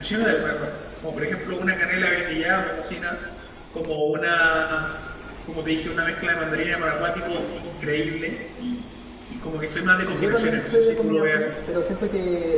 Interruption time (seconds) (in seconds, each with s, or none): 10.1 s